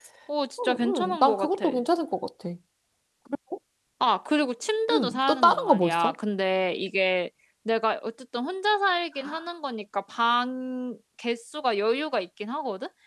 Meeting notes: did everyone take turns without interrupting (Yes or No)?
No